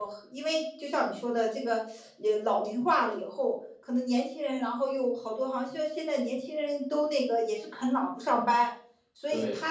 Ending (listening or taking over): listening